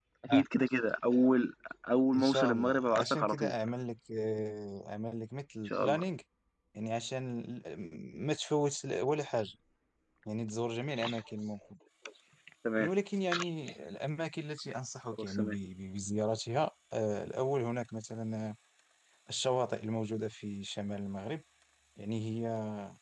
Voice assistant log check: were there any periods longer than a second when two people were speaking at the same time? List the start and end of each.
2.1-3.5

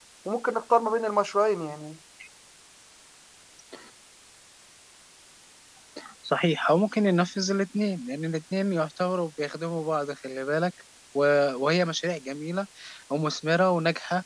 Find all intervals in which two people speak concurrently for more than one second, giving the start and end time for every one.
none

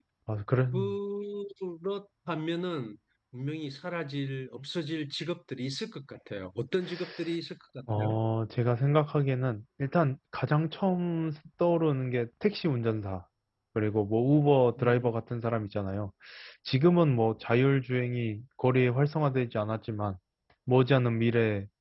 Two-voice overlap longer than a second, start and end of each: none

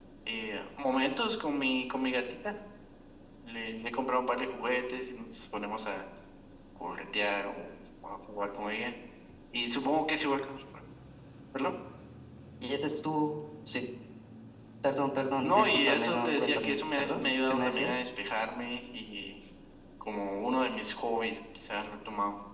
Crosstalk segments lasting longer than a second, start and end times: 15.4-17.9

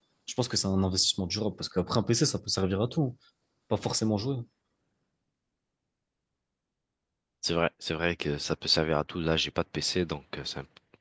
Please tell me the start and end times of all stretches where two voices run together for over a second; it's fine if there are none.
none

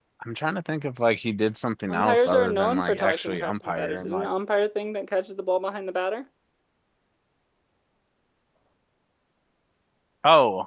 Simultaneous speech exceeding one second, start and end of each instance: 1.9-4.3

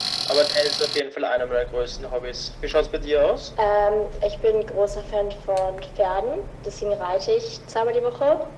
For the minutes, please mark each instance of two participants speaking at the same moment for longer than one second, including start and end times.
none

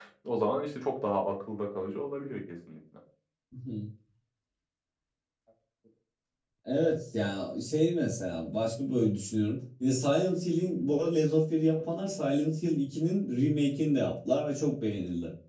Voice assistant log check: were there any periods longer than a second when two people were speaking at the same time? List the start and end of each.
none

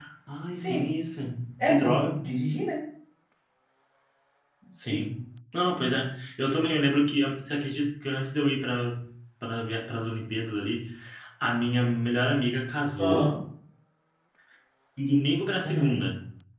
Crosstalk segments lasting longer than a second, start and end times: none

